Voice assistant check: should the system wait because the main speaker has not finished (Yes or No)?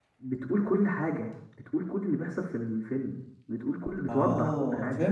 No